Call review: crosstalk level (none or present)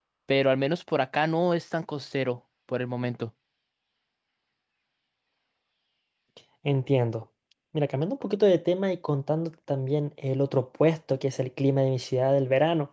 none